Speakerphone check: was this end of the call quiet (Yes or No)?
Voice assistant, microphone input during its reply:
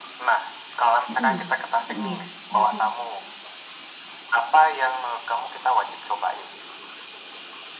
No